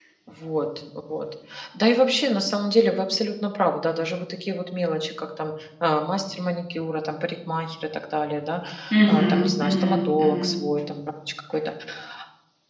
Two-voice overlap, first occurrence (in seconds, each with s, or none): 9.1 s